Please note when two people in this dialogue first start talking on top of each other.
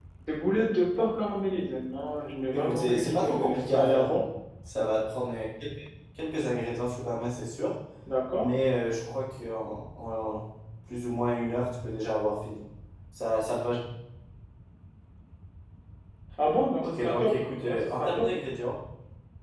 2.5 s

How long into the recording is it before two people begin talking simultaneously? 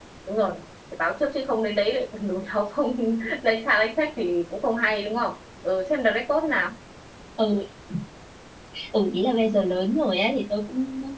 none

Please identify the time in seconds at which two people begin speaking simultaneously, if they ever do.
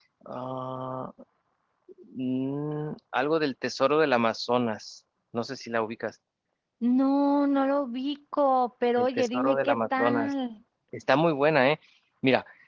9.0 s

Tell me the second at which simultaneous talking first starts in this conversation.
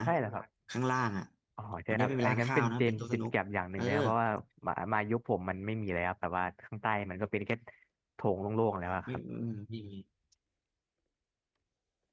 1.9 s

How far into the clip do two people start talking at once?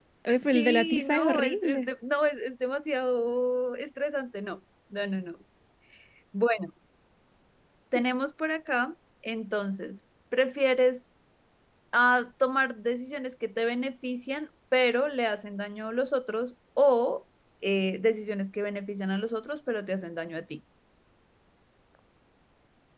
0.5 s

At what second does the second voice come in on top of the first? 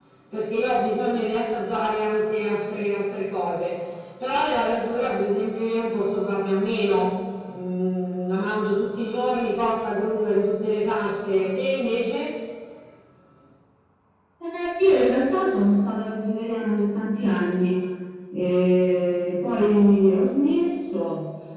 none

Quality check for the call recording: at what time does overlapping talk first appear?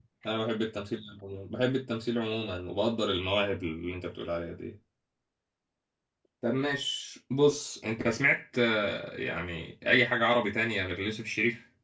none

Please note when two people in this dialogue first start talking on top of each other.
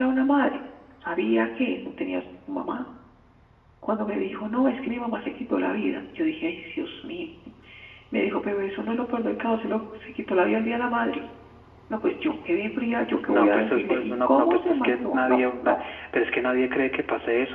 13.3 s

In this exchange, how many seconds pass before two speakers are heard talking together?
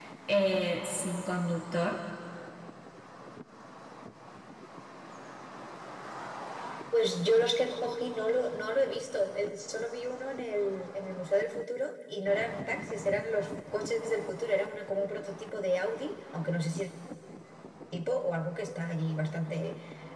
none

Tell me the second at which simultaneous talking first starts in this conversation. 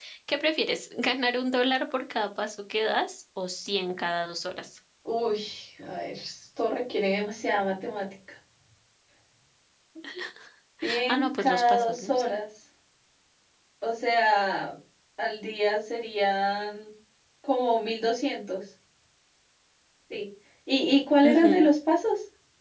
11.1 s

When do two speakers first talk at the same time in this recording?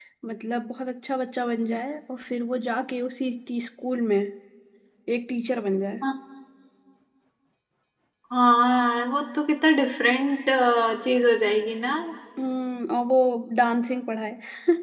none

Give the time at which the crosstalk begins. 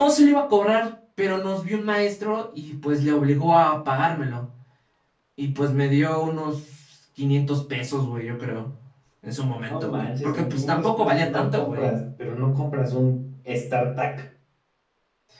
9.7 s

